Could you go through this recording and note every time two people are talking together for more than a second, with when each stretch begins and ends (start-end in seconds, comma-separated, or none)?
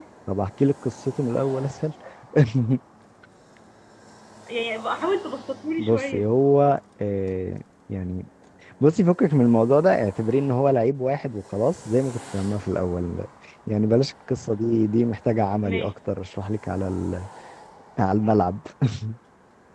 none